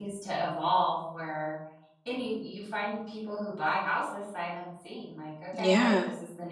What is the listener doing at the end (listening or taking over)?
listening